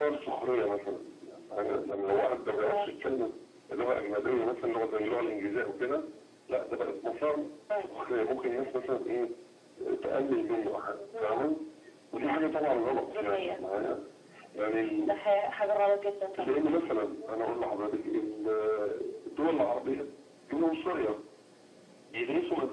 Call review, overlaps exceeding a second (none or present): none